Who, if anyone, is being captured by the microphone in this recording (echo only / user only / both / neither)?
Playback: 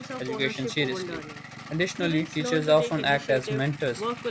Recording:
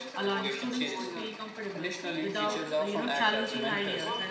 both